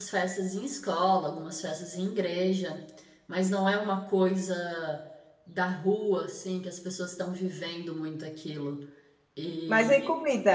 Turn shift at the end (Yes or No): Yes